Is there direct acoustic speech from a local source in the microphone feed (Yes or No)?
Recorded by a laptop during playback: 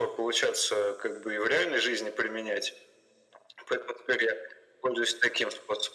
No